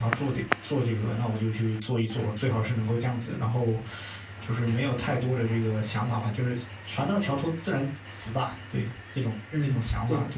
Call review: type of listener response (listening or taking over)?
taking over